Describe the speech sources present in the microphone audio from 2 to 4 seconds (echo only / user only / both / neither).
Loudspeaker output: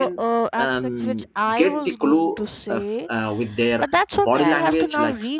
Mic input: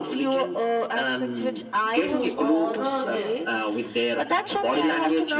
both